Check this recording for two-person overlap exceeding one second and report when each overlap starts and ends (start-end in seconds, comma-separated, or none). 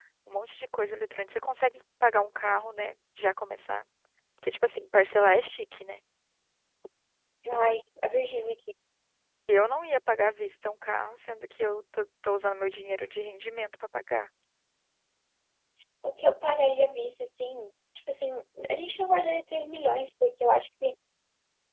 none